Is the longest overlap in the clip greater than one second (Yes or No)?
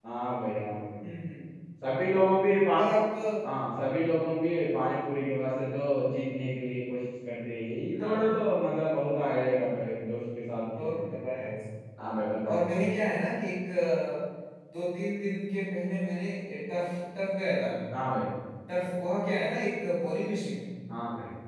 No